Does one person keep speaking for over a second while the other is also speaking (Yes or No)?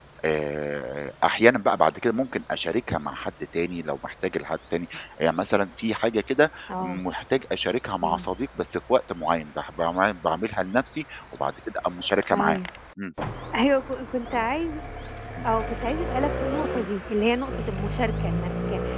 No